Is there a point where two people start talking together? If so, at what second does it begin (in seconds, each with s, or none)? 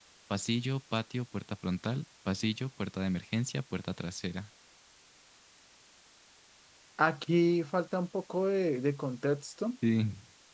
none